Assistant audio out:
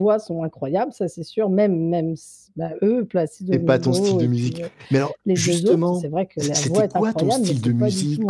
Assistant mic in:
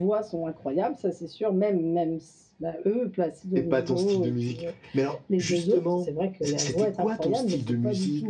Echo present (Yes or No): Yes